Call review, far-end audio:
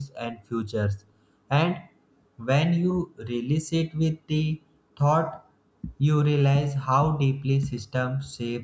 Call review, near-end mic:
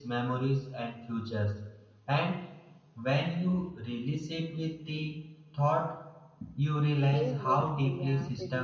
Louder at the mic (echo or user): echo